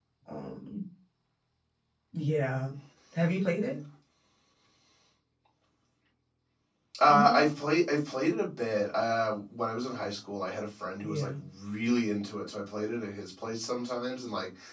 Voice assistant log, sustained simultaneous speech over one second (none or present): none